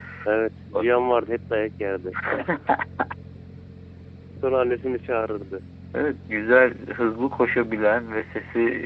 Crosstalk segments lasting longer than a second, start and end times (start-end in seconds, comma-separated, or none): none